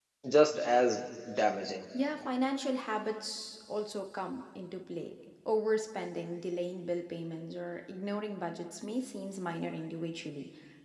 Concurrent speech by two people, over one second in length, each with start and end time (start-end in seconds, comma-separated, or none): none